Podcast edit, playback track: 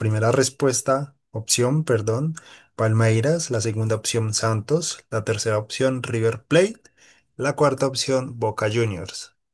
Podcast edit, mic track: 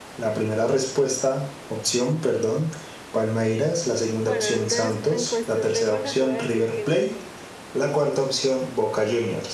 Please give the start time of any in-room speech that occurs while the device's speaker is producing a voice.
4 s

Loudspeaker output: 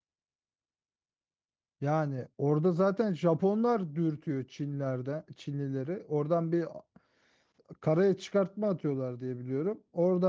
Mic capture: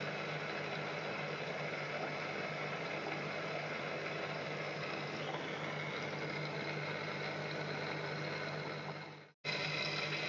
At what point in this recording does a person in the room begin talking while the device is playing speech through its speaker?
none

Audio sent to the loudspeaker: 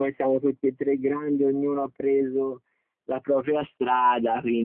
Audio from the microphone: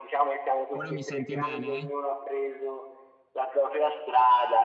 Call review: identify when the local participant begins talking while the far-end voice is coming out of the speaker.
1 s

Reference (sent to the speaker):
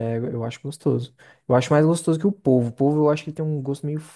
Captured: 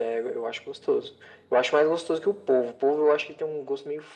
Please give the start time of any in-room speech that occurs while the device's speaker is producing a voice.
none

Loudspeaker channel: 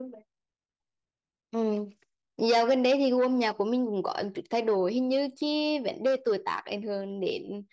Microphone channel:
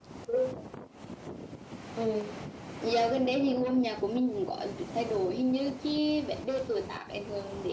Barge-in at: none

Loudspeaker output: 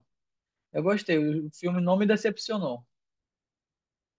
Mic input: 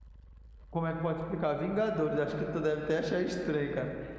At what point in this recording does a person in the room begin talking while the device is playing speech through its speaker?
1 s

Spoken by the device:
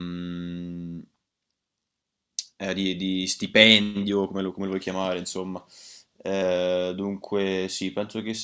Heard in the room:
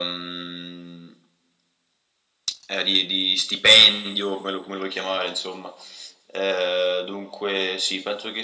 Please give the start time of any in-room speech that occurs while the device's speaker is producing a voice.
none

